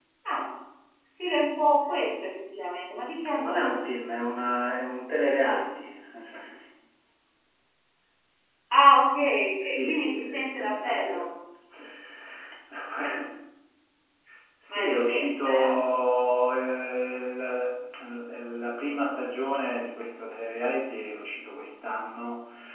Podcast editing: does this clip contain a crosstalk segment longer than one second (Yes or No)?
Yes